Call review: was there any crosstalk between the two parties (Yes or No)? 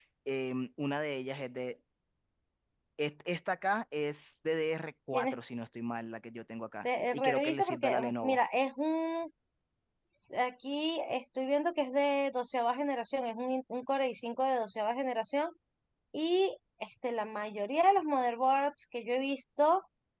Yes